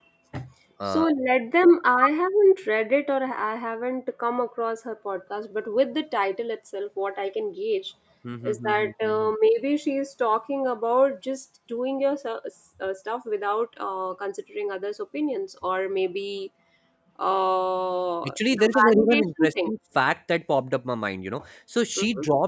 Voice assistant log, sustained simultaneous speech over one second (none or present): present